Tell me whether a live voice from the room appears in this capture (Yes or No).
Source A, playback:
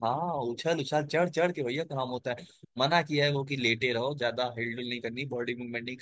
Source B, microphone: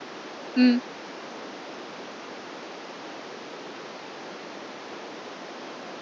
Yes